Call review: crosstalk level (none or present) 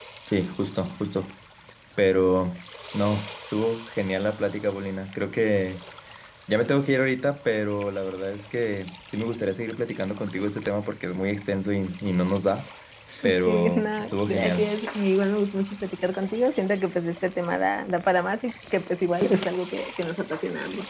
present